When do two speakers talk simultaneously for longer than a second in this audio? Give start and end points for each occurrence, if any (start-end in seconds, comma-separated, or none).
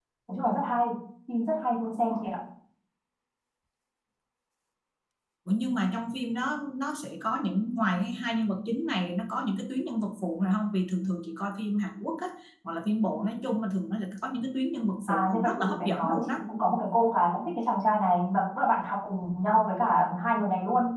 15.1-16.4